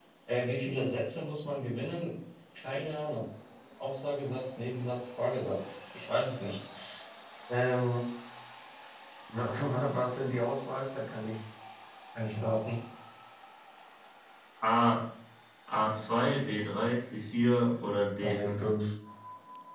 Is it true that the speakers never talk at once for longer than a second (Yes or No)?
Yes